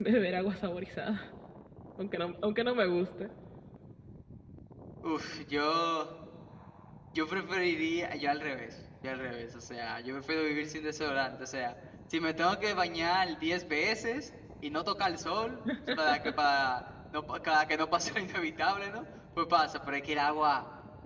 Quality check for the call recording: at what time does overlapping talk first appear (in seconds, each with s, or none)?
none